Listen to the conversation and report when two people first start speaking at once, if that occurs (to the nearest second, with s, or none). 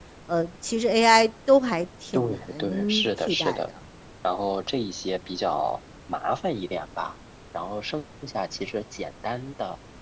2 s